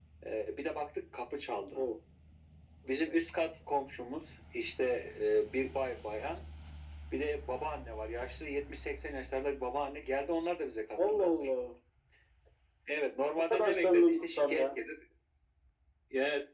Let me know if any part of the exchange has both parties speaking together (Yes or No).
Yes